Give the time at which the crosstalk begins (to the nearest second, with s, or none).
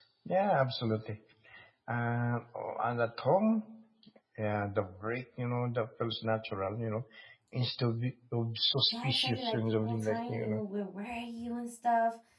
9 s